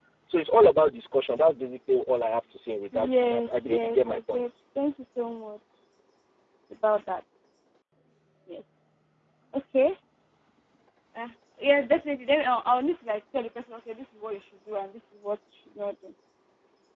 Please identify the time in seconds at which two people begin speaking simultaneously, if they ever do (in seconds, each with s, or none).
2.9 s